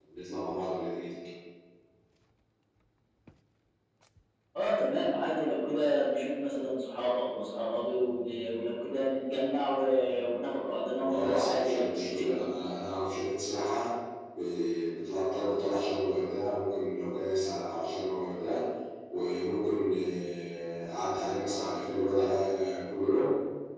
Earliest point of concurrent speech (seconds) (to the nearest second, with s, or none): 11 s